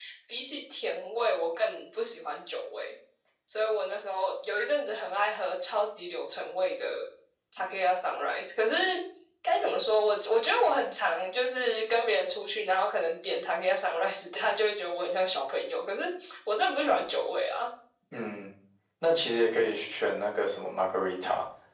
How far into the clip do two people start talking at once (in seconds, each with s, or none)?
none